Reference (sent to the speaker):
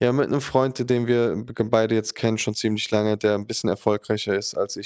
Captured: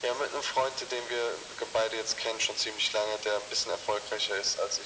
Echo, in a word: present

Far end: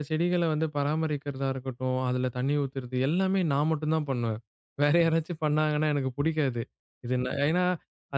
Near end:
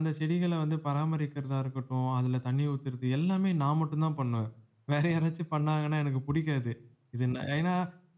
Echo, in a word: present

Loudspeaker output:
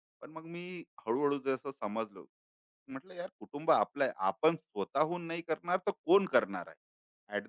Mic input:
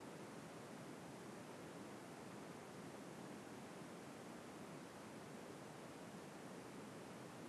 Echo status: none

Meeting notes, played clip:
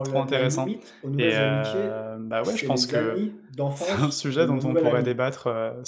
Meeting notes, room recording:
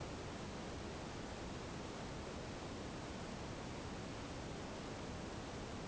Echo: none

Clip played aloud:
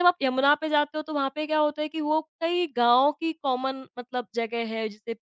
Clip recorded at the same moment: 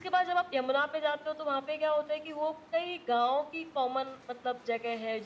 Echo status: present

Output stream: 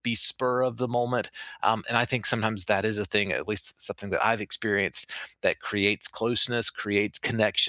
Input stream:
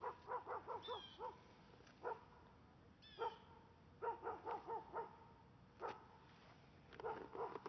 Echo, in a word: none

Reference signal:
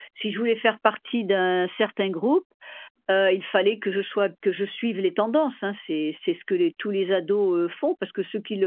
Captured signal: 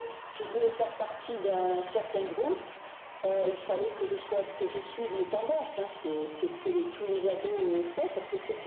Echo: present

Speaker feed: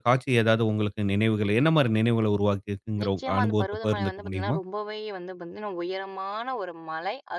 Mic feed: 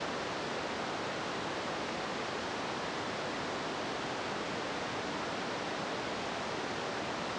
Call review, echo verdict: none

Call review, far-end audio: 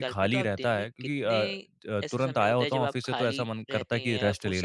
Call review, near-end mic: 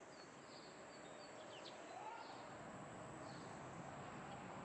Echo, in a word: none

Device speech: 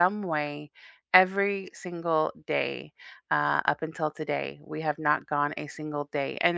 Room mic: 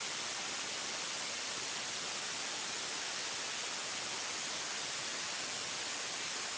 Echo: none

